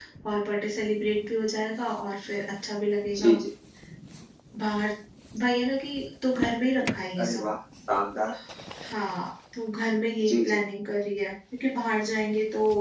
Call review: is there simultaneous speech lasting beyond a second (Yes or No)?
No